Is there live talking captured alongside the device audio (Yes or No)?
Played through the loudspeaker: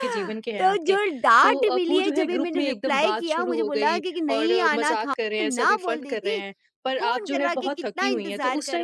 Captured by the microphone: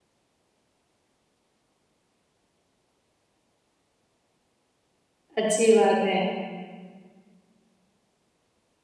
Yes